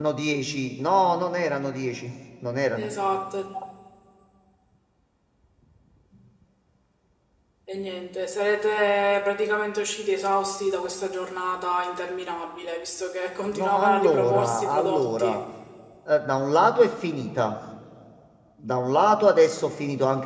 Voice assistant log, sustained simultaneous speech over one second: present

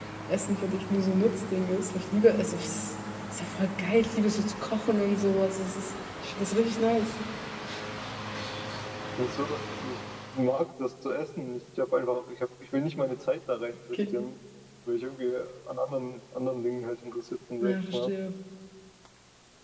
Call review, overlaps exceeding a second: none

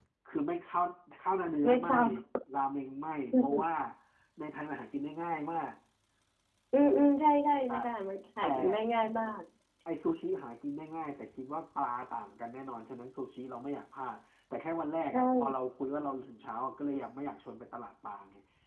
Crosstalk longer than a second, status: none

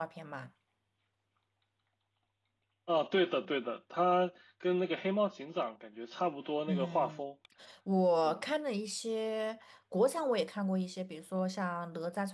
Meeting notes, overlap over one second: none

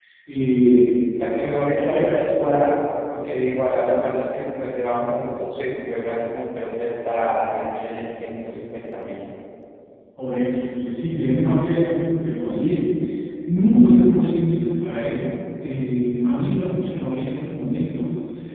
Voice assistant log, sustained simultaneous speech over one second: none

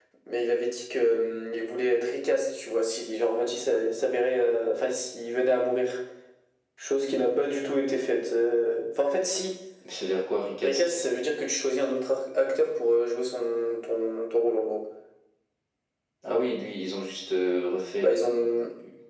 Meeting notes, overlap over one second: none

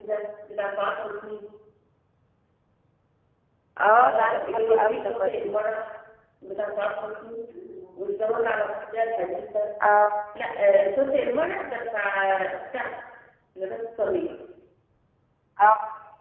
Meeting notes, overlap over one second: present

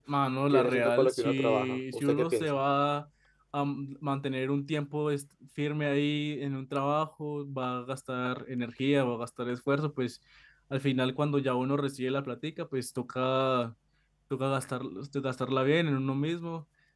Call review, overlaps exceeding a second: present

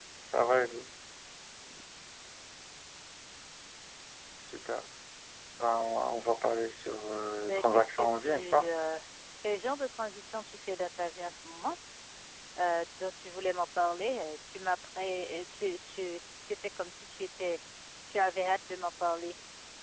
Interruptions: present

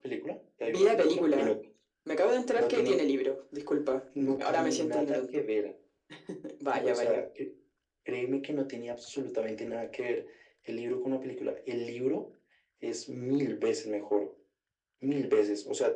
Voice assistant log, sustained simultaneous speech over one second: present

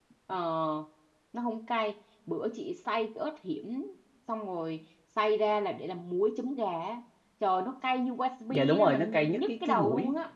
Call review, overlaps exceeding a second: present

